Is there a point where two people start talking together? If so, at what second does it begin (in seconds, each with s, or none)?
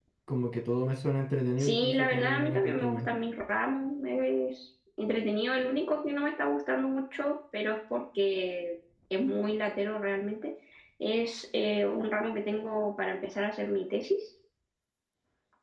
1.6 s